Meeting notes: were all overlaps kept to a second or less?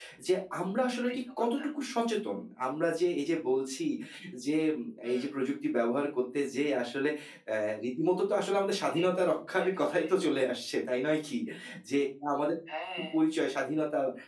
Yes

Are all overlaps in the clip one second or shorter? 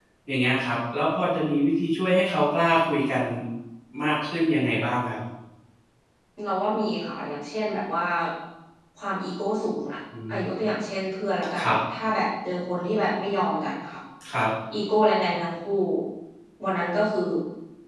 Yes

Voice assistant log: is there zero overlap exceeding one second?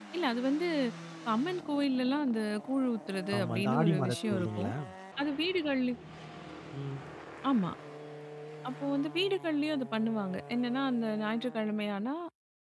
No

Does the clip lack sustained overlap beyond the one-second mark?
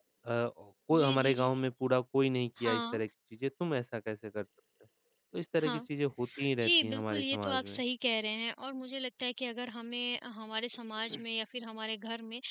No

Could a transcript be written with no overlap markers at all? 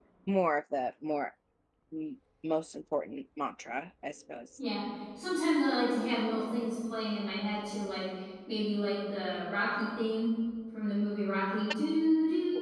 Yes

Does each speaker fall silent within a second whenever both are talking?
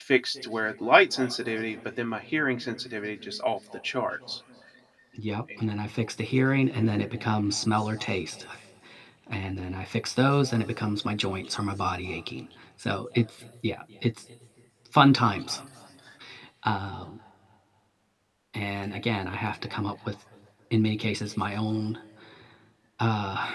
Yes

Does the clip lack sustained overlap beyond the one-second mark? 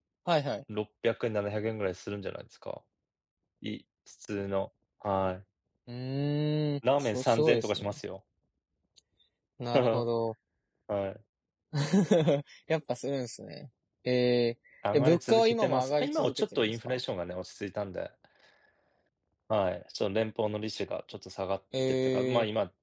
No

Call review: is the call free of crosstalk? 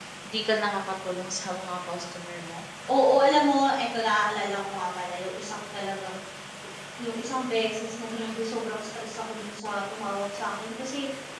Yes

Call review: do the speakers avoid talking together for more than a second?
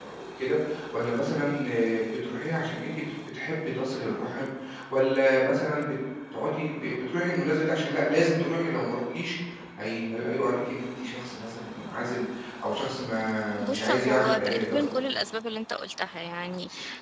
No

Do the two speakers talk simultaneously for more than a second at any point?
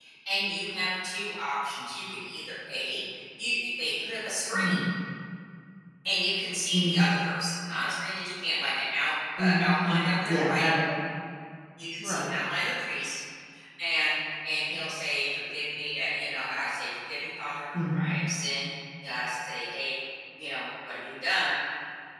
Yes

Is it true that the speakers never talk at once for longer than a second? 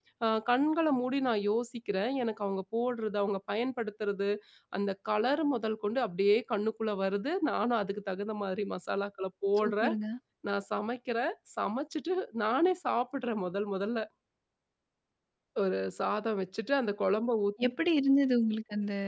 Yes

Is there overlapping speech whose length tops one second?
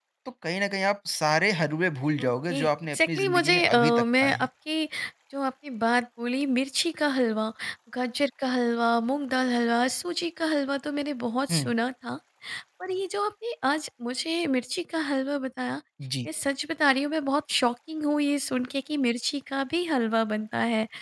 Yes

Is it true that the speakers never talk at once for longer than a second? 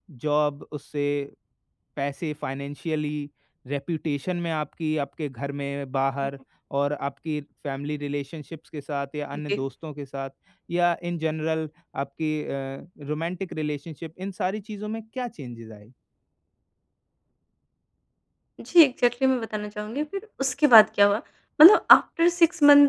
Yes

